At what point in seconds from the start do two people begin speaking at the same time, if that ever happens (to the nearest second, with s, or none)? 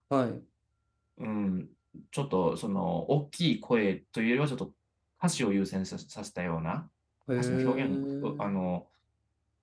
7 s